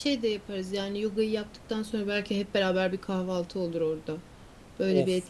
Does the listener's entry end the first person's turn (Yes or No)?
Yes